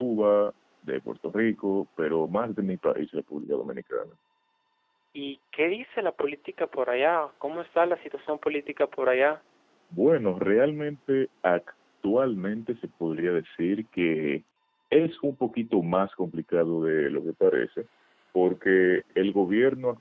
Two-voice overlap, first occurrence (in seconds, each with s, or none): none